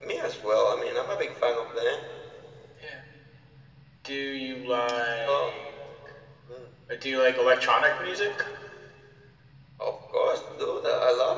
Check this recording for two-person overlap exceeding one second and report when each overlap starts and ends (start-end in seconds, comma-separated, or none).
none